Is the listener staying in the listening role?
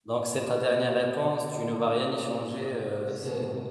No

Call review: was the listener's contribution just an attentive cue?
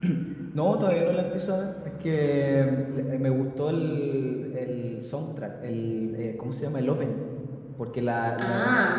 Yes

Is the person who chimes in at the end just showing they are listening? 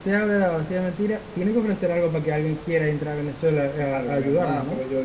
No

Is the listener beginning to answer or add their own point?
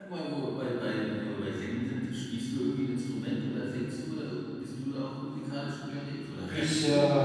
Yes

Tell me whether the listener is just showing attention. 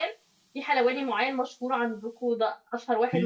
No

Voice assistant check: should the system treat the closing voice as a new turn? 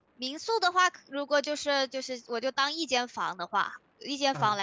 No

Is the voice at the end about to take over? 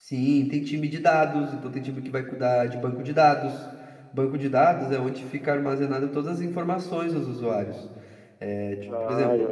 Yes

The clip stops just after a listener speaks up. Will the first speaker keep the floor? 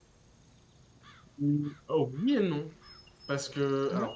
Yes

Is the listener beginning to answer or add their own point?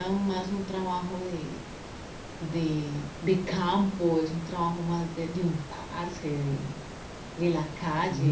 No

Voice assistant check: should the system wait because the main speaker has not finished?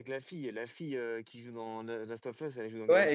No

